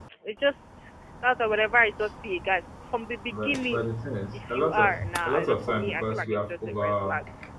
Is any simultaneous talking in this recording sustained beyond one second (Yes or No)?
Yes